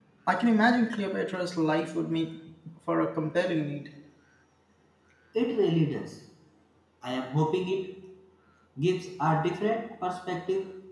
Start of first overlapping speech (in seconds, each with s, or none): none